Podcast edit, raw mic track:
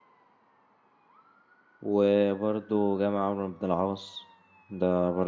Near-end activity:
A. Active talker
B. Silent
A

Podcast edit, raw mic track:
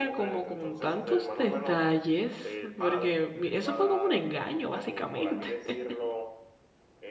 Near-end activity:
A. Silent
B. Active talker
B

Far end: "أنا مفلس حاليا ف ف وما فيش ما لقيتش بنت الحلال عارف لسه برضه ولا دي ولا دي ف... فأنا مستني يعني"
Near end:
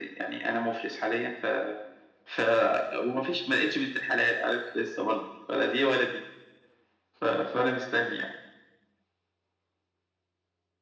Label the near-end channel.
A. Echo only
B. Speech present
A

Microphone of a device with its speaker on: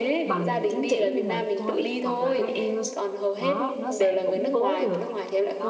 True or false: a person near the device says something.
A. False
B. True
B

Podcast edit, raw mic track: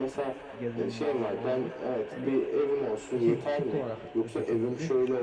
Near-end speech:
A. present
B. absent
A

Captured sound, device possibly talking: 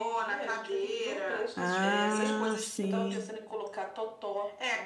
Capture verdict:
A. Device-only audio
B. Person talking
B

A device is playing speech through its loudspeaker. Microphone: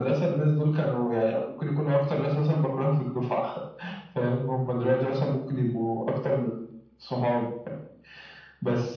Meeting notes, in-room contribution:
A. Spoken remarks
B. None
B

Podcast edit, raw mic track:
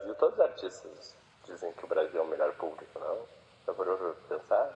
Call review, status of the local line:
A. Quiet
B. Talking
A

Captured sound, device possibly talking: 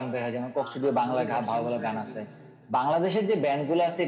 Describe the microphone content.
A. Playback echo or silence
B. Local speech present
B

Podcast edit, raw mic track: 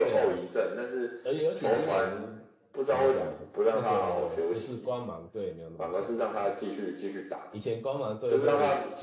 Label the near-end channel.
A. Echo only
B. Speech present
B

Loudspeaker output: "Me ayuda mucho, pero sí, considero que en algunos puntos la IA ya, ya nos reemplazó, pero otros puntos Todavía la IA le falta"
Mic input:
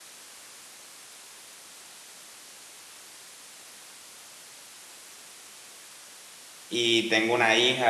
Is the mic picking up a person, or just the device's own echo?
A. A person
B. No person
A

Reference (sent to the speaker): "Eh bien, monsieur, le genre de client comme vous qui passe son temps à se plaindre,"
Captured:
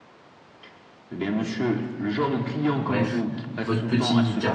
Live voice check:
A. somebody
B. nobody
A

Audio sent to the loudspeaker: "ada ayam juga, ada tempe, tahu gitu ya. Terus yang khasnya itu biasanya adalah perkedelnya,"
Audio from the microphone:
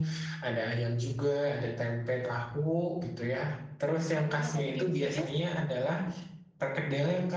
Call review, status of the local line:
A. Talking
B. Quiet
A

